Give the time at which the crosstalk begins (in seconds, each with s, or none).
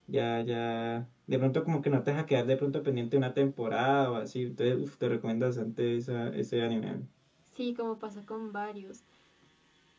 none